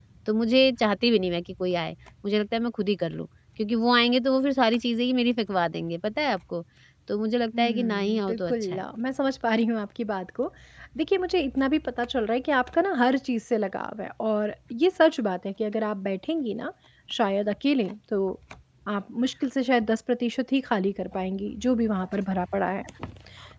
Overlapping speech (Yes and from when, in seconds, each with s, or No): Yes, from 7.6 s